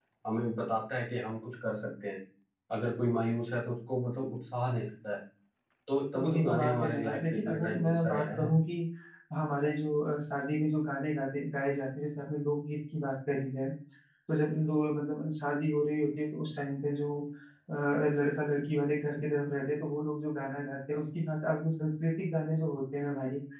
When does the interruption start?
6.1 s

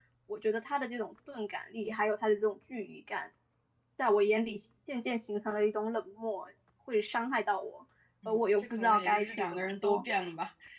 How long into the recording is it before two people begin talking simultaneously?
8.2 s

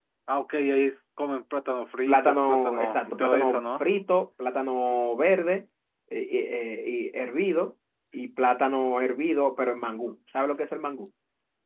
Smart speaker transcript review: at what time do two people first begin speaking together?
2.1 s

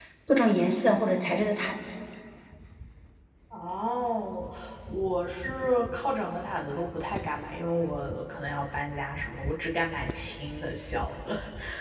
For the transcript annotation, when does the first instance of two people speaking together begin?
none

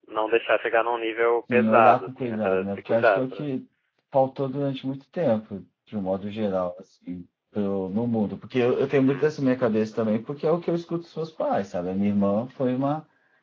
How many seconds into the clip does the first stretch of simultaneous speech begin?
1.5 s

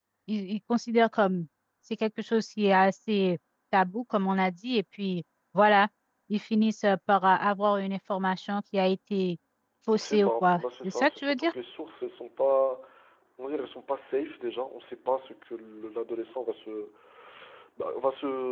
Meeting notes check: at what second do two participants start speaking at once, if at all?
10.0 s

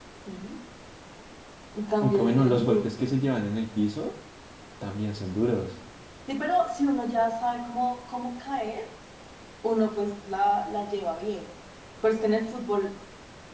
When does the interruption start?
2.0 s

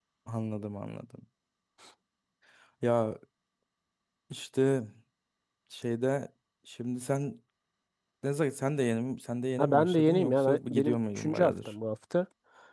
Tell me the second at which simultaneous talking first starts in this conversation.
9.6 s

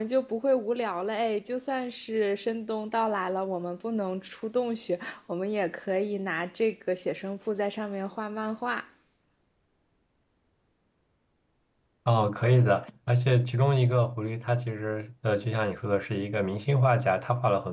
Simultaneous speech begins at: none

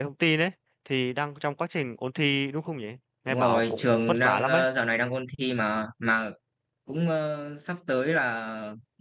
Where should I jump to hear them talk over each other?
3.3 s

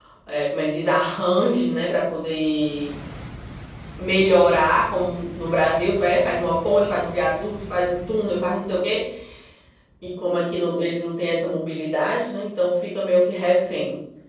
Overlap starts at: none

